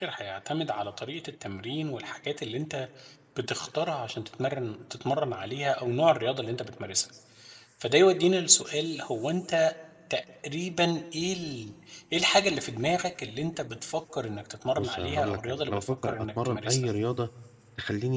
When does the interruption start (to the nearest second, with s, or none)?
15 s